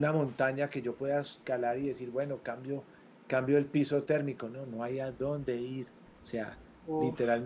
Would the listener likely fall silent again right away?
Yes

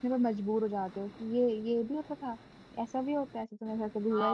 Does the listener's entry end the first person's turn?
Yes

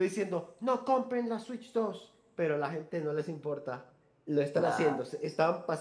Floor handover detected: No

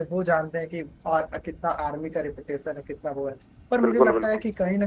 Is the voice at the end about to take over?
No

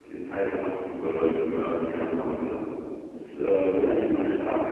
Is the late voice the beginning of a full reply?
No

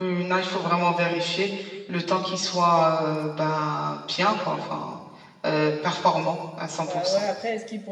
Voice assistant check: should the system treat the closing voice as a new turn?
Yes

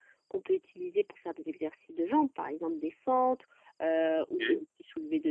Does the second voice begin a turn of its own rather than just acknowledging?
No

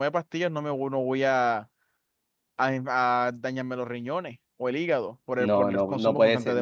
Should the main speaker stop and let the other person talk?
Yes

